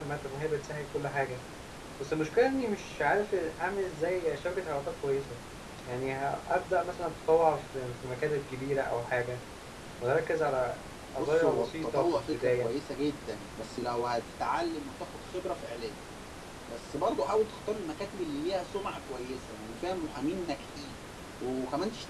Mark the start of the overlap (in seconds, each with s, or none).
11.2 s